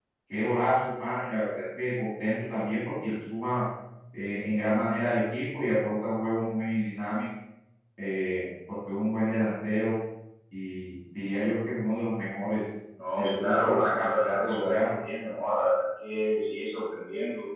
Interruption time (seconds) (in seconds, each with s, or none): 13.2 s